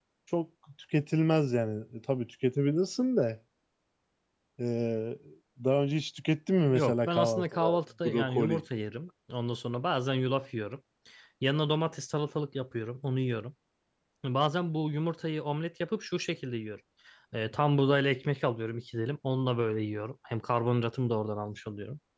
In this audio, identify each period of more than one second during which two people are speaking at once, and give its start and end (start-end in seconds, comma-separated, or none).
6.7-8.6